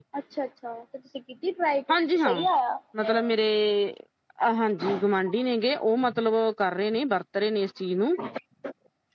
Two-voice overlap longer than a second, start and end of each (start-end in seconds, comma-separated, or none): none